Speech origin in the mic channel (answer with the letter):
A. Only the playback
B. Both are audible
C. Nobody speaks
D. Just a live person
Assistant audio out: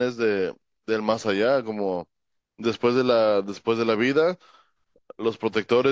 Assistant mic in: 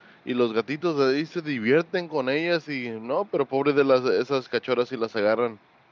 D